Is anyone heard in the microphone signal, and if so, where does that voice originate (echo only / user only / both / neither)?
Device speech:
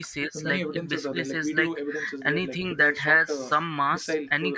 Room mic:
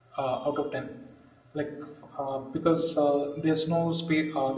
user only